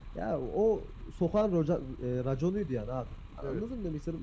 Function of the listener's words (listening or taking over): listening